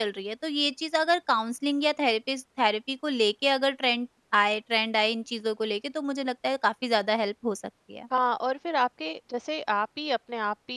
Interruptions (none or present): none